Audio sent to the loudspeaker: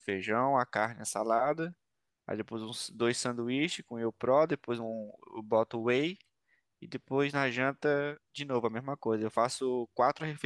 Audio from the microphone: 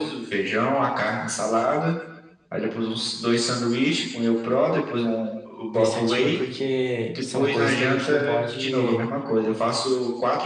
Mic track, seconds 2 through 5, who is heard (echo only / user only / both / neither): echo only